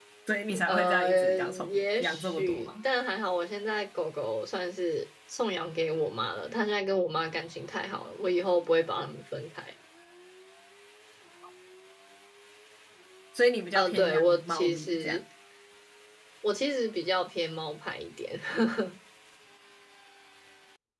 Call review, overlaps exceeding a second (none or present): present